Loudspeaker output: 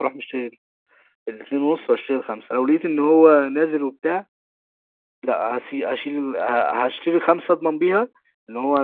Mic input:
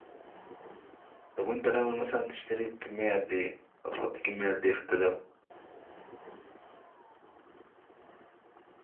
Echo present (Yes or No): No